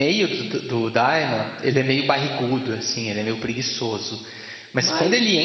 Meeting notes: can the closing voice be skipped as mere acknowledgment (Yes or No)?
Yes